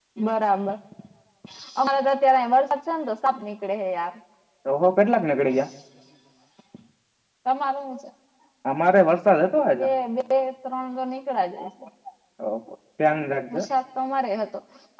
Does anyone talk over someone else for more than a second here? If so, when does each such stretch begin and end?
none

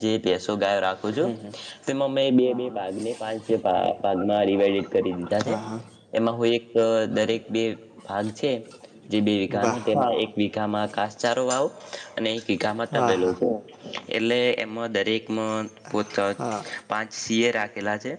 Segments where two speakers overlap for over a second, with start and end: none

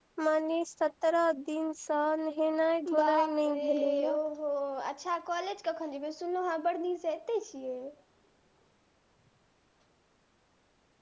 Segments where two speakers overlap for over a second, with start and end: 3.0-4.2

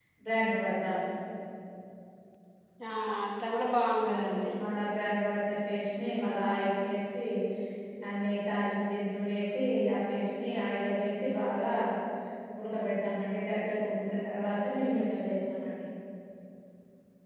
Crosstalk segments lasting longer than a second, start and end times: none

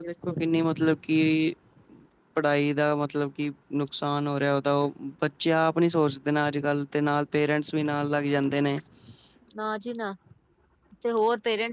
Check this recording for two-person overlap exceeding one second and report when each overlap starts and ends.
none

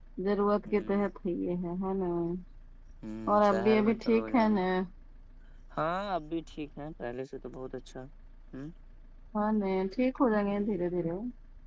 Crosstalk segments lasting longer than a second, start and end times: 3.3-4.6

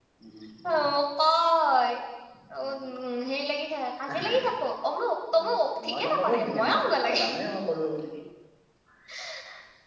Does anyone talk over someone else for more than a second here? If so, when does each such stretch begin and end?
5.4-6.8

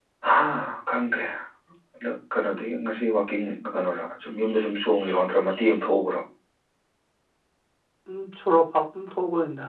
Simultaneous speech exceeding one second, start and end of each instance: none

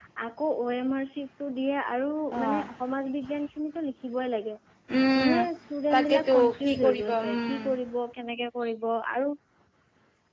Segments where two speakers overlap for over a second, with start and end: 5.9-7.7

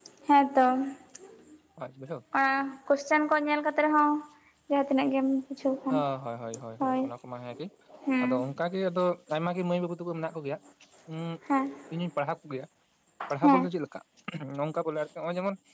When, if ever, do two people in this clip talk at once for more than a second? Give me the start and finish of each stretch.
none

